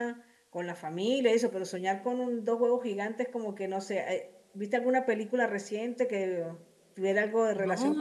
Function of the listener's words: taking over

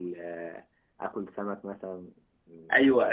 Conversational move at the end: taking over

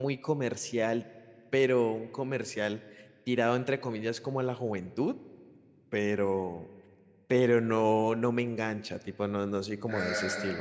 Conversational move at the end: taking over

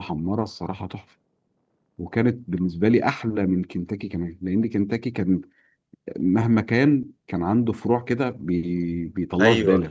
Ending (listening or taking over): taking over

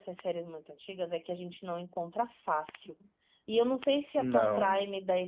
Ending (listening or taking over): listening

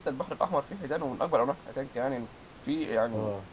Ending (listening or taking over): listening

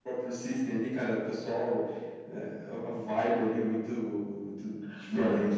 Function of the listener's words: taking over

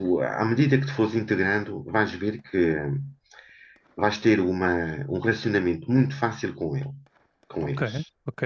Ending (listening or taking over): taking over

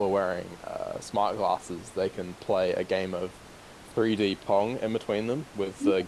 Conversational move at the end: listening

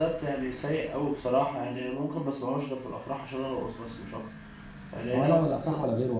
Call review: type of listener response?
taking over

